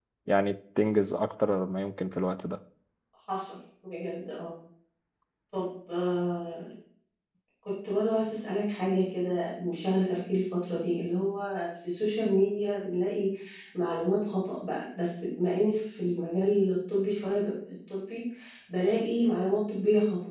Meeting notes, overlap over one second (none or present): none